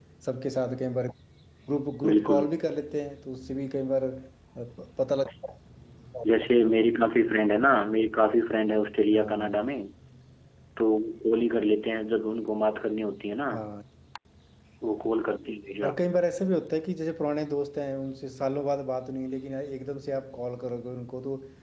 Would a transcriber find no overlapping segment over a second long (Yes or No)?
Yes